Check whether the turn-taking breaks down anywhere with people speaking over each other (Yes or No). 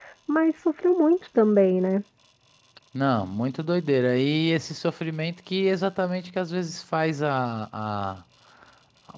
No